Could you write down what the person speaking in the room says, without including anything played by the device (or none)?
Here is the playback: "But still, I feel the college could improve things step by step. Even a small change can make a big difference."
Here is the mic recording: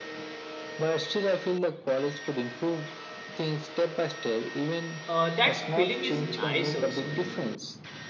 uh, that feeling is nice also.